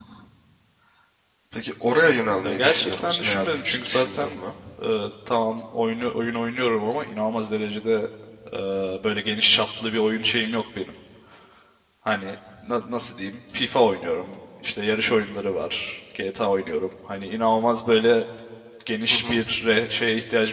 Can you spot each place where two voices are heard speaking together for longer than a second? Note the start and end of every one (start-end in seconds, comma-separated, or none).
2.4-4.4